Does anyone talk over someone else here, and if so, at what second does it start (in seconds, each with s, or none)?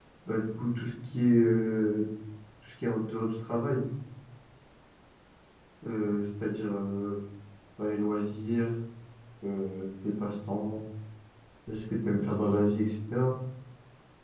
none